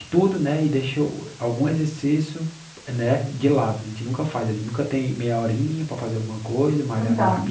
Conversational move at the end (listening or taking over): listening